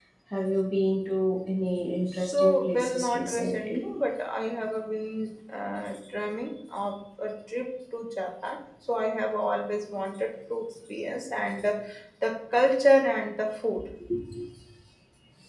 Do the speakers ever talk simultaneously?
Yes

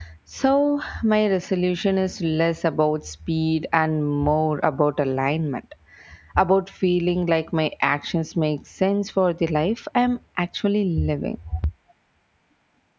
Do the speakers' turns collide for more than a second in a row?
No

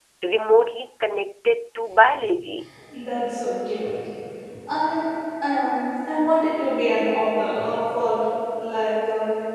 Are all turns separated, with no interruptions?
Yes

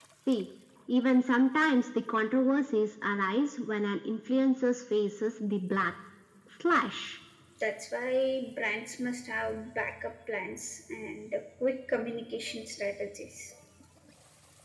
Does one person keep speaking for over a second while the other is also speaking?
No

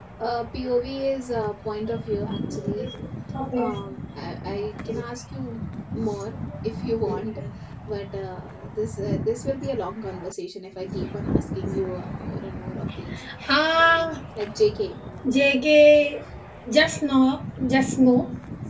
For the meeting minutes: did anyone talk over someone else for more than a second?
No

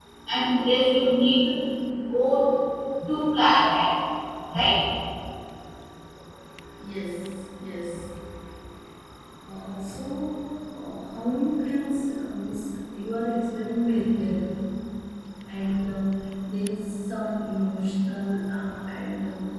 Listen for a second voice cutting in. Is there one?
No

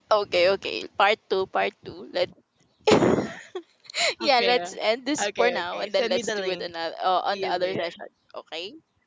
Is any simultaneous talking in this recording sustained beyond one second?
Yes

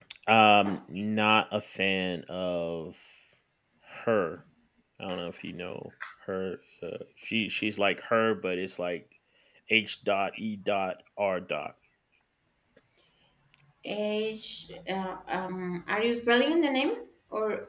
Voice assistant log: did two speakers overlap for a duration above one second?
No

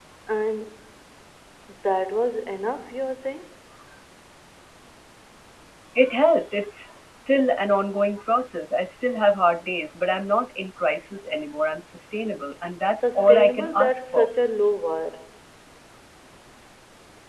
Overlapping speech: Yes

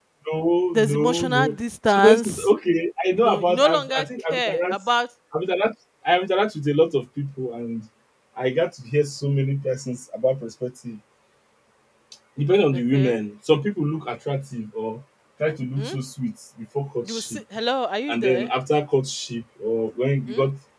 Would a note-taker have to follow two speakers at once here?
Yes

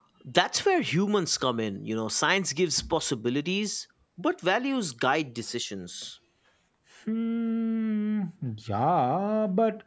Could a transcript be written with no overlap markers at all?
Yes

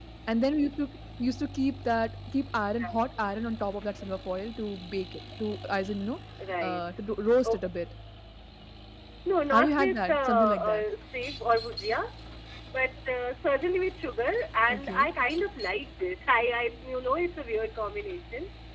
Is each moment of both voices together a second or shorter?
No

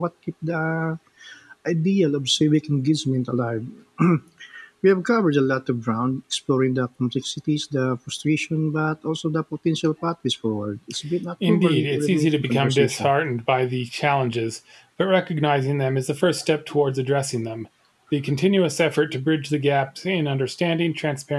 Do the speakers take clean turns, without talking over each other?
No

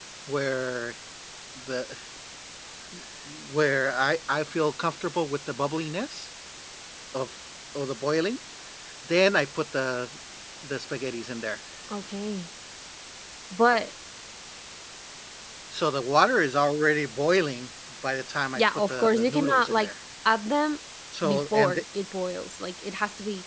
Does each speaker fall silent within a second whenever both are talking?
No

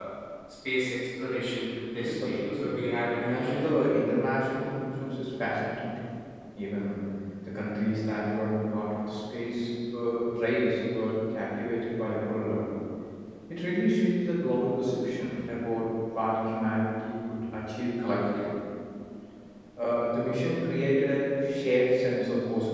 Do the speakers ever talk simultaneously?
Yes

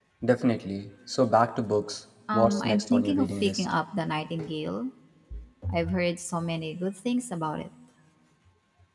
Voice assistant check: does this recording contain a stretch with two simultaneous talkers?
Yes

